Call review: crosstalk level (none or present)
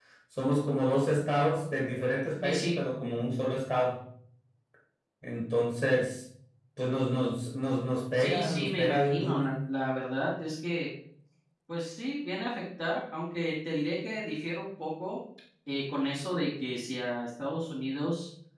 present